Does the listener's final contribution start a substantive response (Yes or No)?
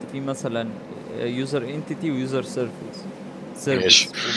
No